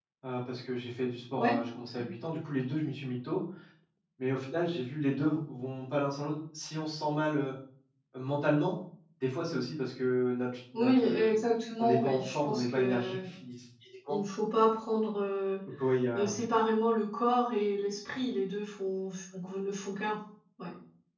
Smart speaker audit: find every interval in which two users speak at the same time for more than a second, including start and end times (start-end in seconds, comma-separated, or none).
11.8-13.2